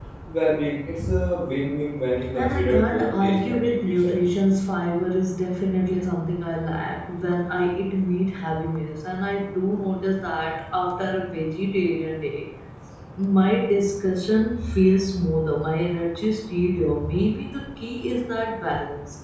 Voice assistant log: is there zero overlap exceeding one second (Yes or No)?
No